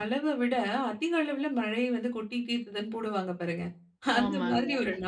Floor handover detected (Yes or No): No